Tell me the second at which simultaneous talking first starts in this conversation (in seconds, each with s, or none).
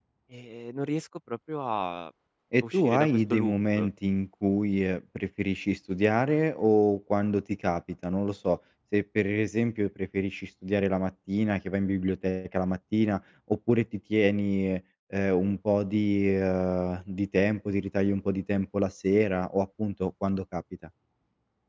2.5 s